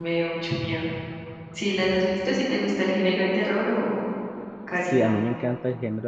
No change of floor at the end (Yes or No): No